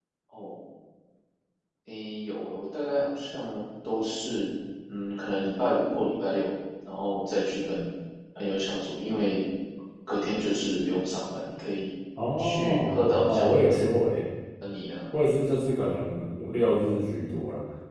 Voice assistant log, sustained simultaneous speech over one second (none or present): present